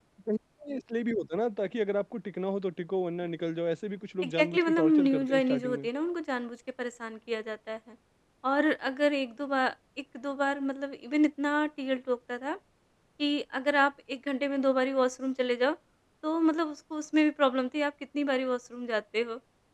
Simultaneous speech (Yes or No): Yes